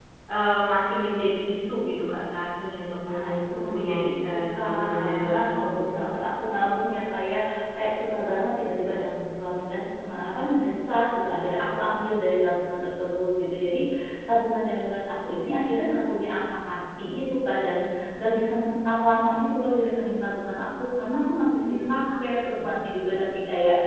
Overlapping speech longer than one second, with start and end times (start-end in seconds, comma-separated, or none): 3.1-5.8